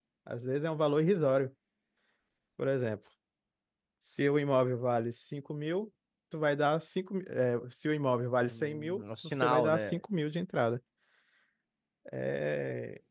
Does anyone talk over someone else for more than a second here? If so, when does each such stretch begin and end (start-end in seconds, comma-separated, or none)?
8.5-10.0